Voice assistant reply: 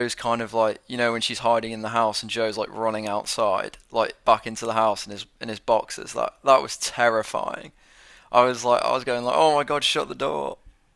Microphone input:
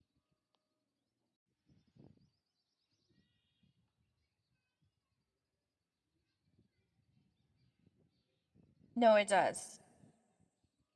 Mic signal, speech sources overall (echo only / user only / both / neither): user only